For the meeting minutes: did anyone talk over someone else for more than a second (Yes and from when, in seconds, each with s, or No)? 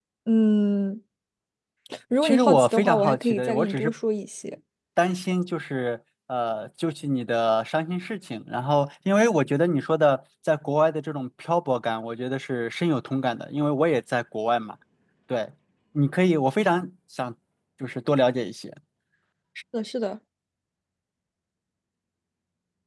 Yes, from 2.2 s